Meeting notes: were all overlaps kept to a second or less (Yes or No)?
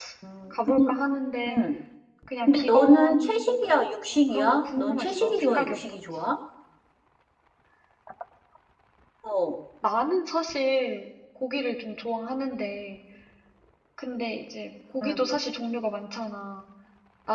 No